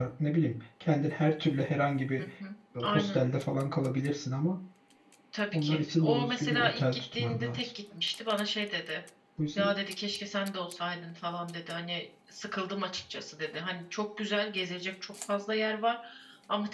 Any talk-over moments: Yes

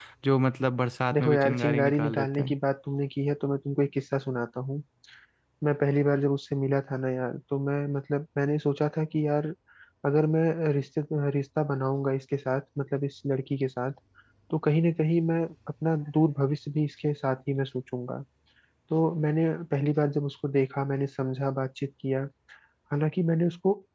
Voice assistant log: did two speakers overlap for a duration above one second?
Yes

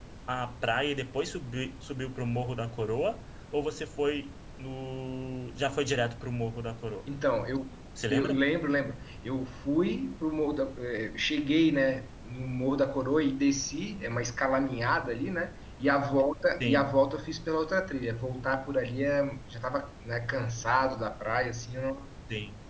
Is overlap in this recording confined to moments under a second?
Yes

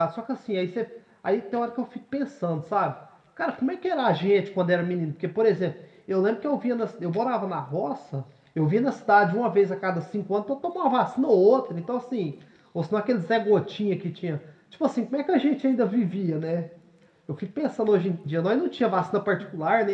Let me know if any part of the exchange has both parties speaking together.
No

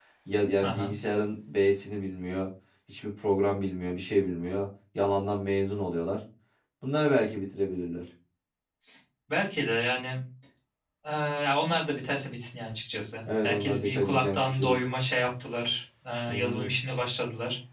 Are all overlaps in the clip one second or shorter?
No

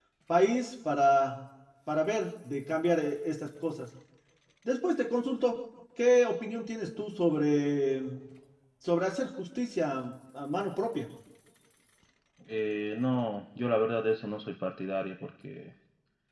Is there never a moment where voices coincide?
Yes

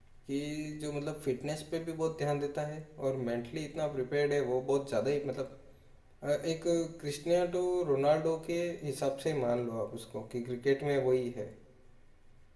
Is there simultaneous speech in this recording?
No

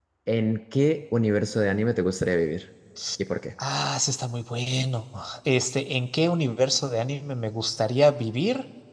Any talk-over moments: No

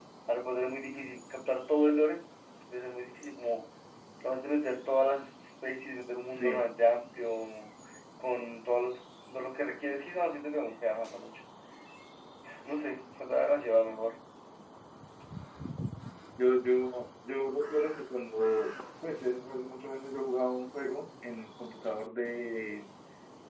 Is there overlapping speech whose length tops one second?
No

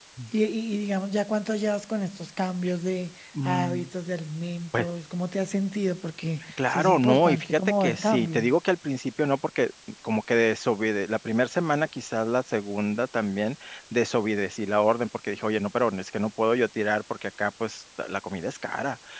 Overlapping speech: Yes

